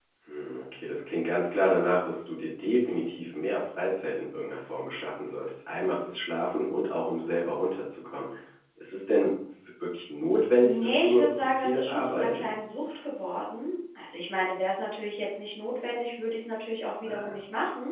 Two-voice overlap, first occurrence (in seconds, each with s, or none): 10.6 s